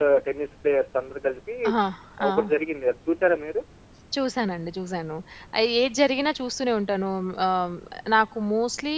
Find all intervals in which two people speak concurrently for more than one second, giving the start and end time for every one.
none

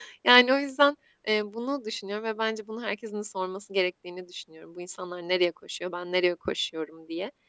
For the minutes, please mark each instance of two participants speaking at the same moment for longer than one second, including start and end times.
none

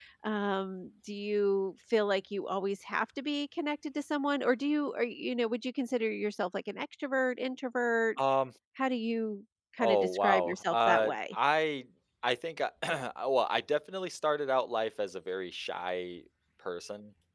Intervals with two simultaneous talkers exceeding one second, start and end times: 9.8-11.3

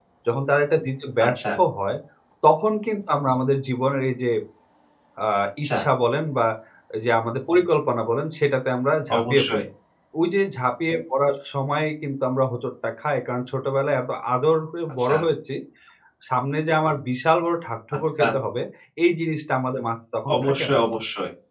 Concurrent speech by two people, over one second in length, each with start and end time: none

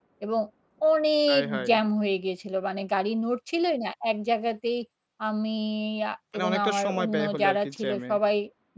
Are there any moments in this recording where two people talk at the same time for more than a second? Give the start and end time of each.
6.3-8.1

